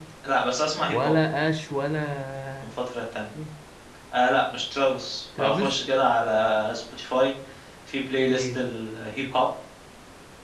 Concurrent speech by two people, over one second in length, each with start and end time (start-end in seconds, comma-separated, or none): none